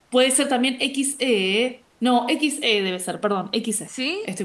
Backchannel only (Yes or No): No